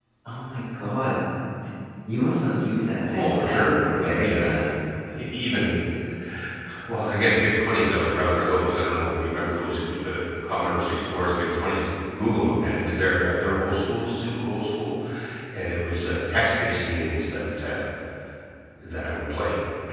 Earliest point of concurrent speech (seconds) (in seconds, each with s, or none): 3.0 s